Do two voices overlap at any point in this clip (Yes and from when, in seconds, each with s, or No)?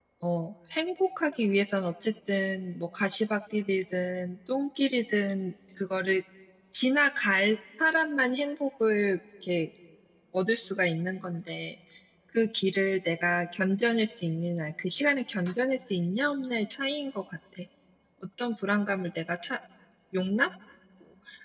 No